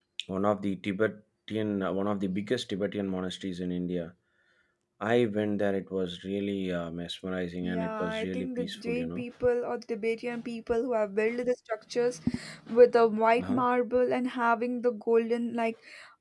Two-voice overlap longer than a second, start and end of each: 7.6-9.2

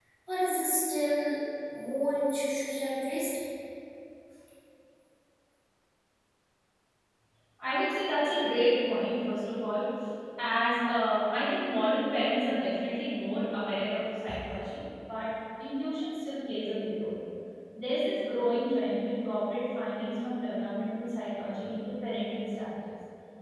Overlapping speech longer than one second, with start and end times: none

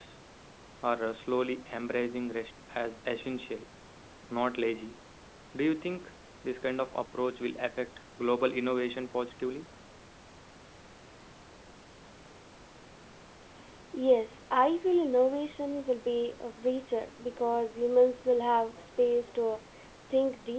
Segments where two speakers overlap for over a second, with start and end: none

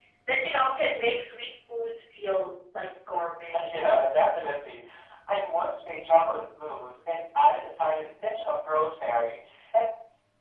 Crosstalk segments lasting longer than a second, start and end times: none

